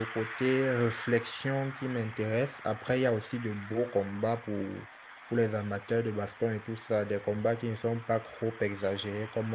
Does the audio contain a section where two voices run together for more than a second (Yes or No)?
No